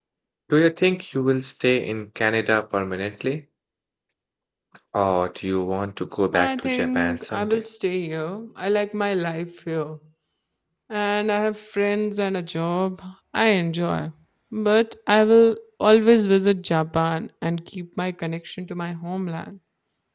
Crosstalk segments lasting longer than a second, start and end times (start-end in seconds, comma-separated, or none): 6.3-7.6